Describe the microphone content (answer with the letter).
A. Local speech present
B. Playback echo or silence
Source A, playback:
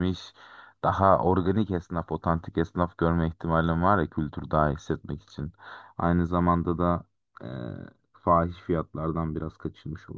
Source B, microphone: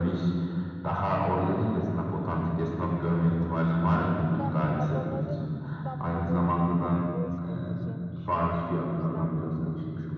A